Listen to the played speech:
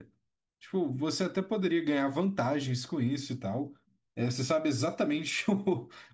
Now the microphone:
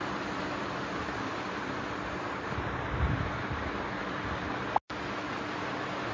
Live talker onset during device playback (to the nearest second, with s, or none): none